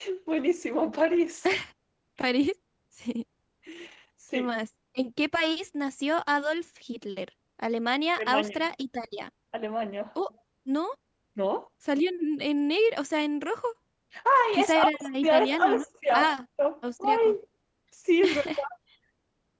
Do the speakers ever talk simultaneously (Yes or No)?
Yes